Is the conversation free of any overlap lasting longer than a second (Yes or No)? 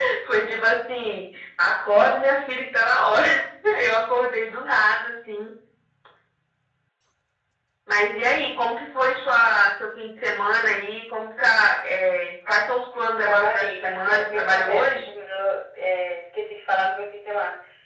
No